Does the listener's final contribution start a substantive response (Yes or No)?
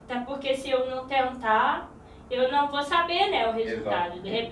No